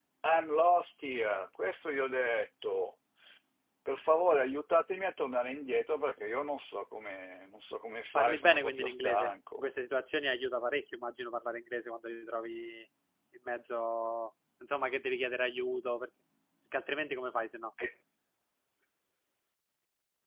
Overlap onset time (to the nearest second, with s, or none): 8 s